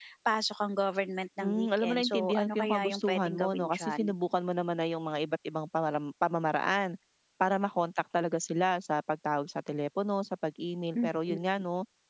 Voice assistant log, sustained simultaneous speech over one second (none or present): present